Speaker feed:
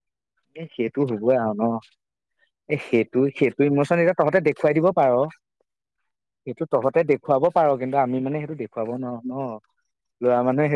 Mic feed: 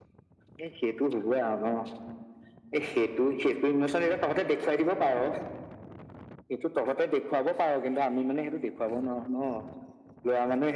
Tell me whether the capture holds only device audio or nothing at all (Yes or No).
Yes